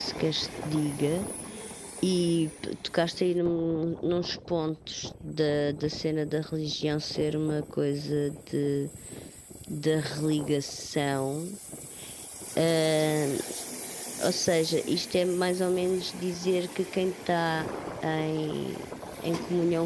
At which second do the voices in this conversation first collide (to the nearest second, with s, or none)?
none